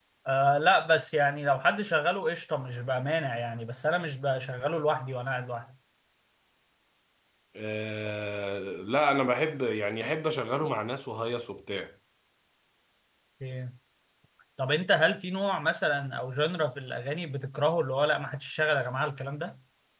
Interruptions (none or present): none